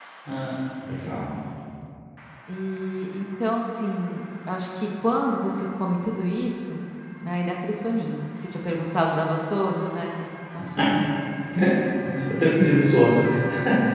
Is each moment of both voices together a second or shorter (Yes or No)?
Yes